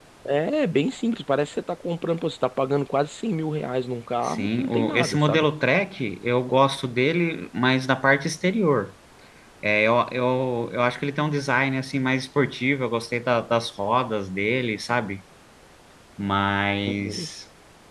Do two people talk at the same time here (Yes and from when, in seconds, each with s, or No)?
Yes, from 4.2 s